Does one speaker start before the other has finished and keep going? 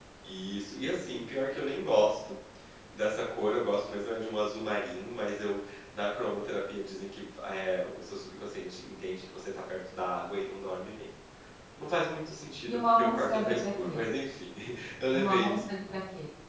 Yes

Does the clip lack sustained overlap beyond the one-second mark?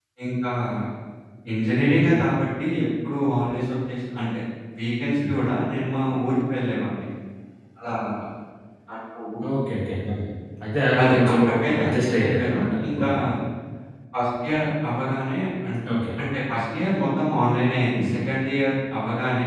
No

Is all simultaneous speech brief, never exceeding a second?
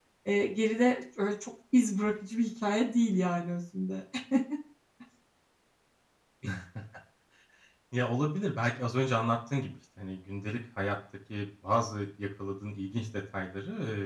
Yes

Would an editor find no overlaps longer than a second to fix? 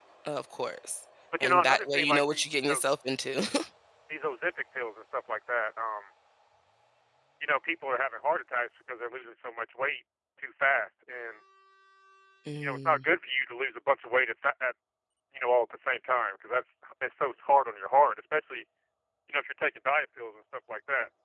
No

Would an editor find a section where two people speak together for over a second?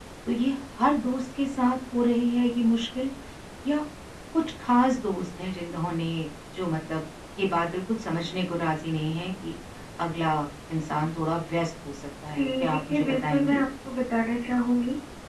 Yes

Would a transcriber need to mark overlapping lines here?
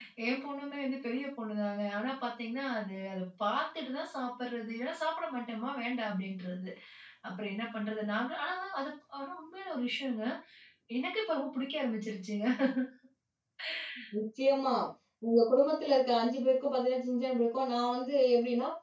No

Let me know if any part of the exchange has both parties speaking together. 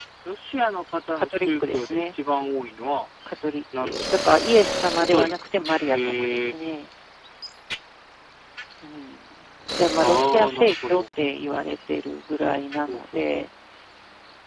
Yes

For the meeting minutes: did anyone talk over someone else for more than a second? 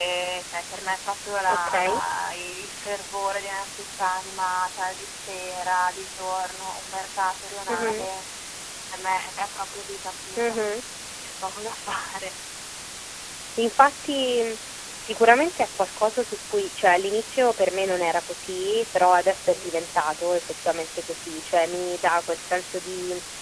No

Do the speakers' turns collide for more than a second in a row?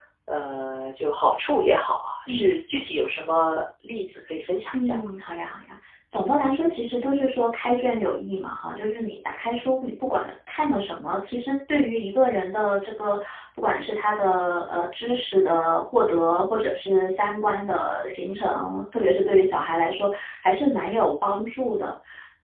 No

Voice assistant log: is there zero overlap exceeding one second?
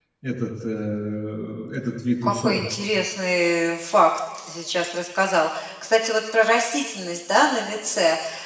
Yes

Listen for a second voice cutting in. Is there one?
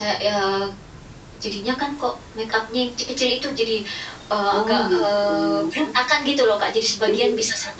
Yes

